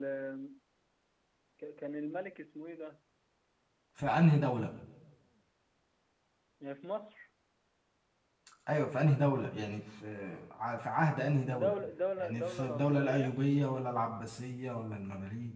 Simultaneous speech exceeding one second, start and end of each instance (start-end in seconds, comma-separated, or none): 12.2-13.4